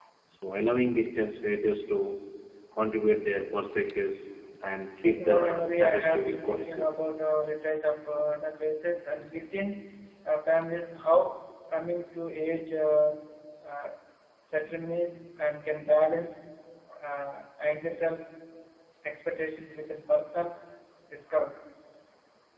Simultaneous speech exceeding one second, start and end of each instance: 4.9-6.9

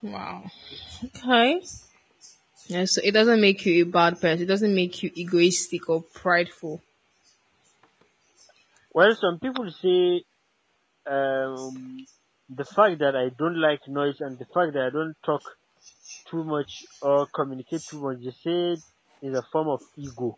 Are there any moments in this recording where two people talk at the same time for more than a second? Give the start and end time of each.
none

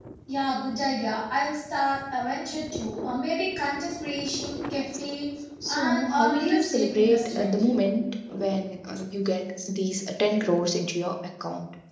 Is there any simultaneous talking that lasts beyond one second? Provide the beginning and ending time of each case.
5.7-7.6

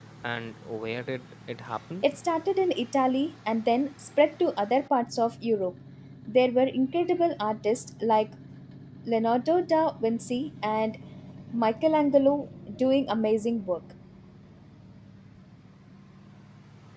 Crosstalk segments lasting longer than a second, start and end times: none

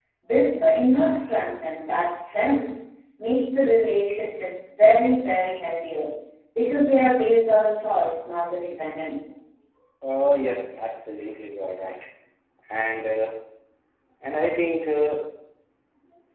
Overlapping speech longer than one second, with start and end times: none

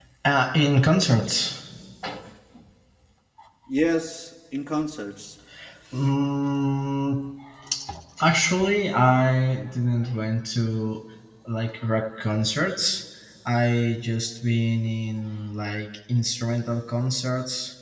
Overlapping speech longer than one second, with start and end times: none

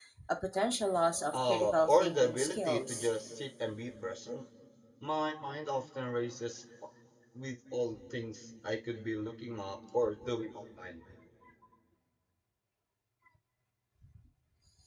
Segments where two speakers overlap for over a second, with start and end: 1.3-3.1

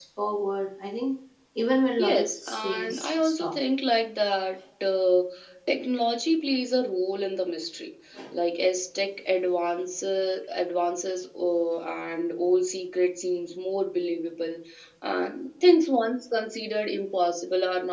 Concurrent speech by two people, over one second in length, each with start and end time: 2.0-3.5

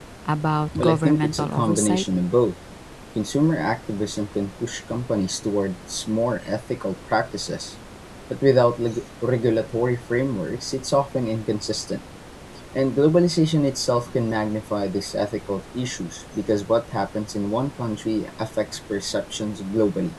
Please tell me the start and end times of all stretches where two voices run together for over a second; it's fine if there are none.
0.8-2.0

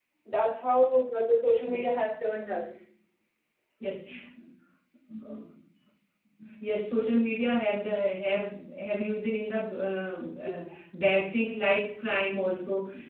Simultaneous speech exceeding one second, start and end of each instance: none

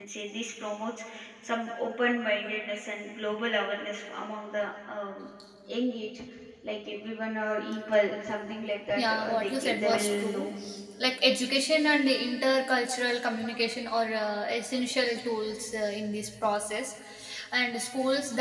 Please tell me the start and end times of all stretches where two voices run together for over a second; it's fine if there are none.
9.0-10.5

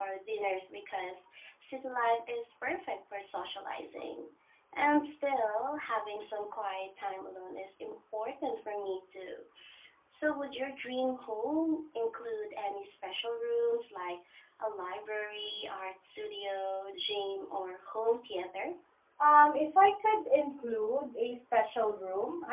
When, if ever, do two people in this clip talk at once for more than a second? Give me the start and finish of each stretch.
none

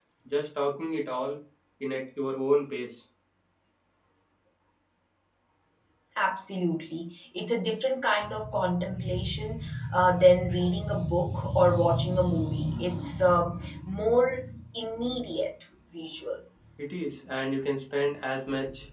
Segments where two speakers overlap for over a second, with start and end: none

